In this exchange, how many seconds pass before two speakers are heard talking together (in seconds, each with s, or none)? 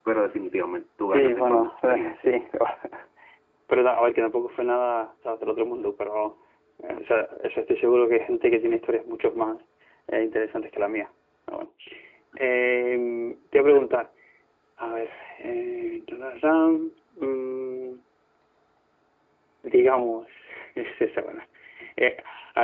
1.1 s